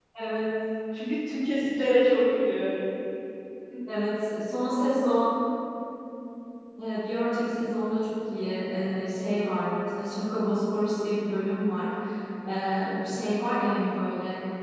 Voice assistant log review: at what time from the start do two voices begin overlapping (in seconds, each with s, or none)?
none